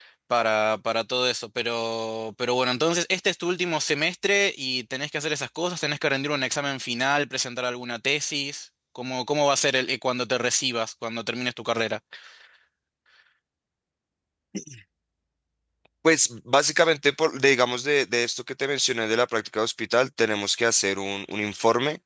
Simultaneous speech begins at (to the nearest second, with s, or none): none